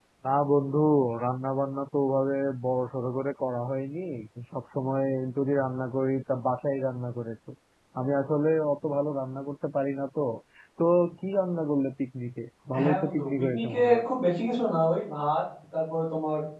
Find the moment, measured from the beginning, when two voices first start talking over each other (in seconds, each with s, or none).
12.7 s